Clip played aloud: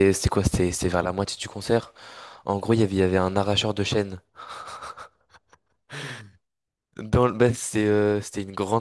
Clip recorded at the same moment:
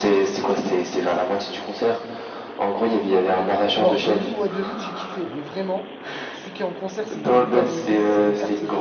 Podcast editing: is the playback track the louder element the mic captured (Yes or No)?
Yes